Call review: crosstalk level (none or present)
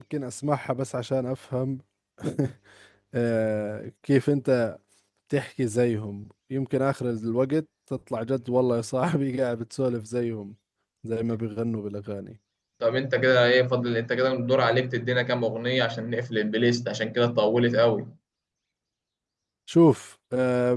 none